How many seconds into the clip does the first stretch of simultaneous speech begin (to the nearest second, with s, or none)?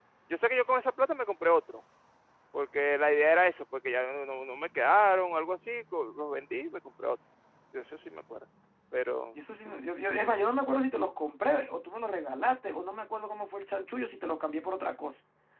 none